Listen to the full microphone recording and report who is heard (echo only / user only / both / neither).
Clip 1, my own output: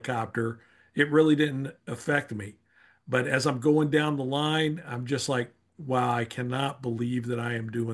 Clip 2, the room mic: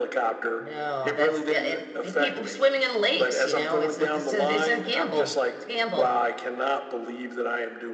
both